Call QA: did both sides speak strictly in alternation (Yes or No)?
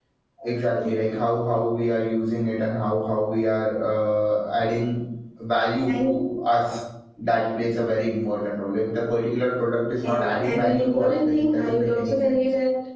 No